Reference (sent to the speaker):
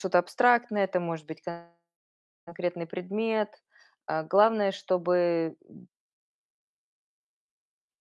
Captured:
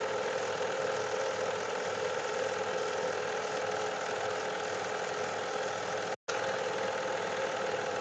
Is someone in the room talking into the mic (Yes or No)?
No